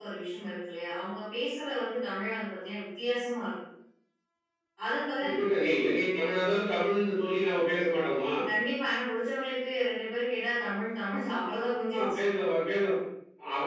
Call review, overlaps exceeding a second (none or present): none